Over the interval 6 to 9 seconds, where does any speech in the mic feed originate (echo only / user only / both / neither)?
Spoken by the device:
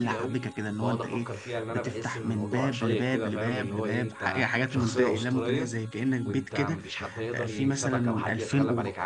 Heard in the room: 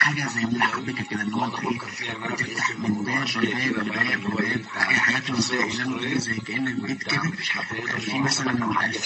both